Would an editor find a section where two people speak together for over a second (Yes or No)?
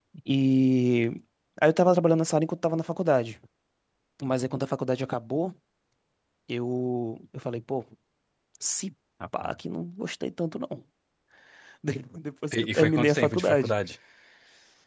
Yes